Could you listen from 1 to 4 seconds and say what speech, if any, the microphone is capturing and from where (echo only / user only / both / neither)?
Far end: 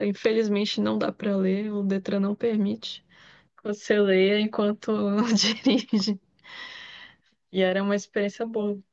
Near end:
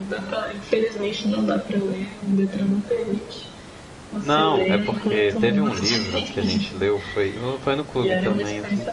echo only